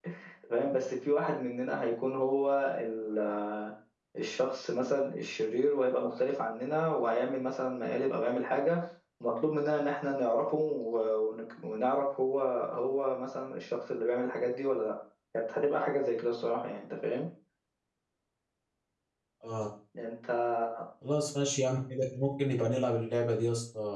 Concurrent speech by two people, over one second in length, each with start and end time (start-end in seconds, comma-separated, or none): none